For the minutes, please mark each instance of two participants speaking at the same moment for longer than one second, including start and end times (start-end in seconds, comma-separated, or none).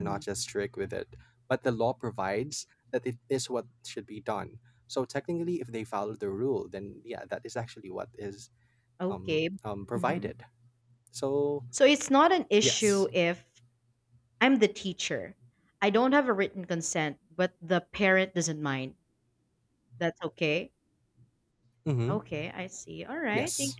none